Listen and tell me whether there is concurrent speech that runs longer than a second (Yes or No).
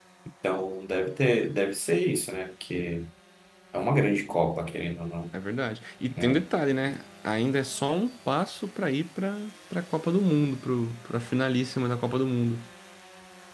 No